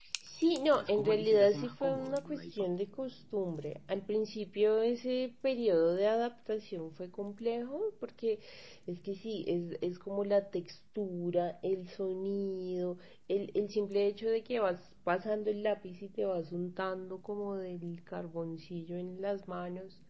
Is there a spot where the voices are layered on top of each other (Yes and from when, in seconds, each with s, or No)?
Yes, from 0.7 s